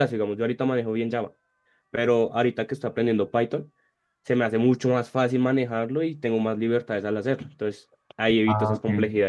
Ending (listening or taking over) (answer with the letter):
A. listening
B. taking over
B